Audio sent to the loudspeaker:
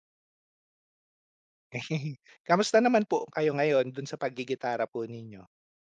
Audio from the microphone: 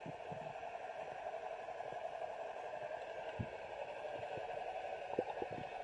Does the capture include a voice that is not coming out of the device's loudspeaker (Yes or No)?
No